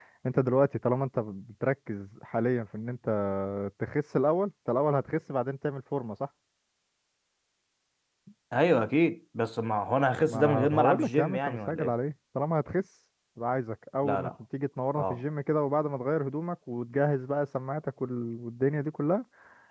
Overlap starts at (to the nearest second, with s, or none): 10 s